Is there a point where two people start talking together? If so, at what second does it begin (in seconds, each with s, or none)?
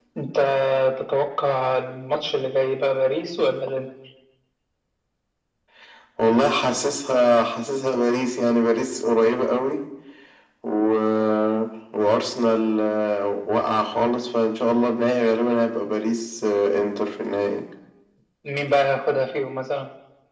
none